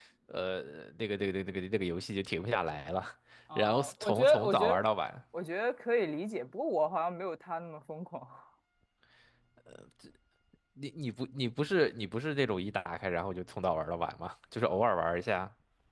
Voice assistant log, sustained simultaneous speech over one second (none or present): present